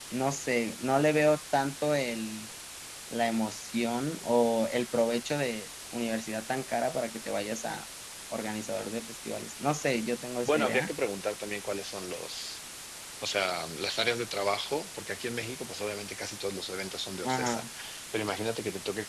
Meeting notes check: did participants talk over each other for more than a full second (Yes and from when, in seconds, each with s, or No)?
No